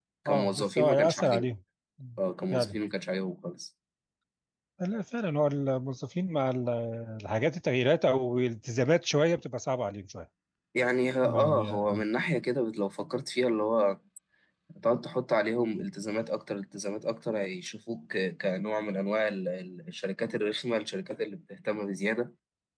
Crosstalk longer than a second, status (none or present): present